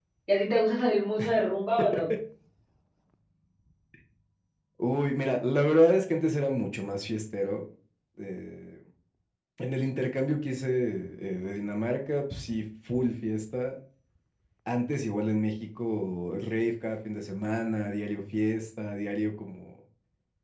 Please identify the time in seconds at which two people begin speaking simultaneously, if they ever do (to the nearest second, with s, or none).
none